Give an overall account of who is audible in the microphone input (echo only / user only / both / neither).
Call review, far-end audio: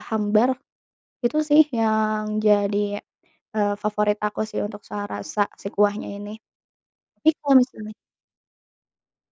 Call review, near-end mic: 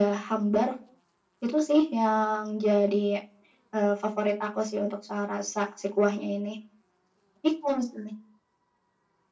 echo only